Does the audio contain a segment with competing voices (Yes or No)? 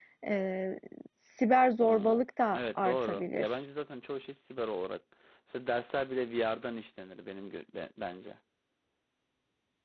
Yes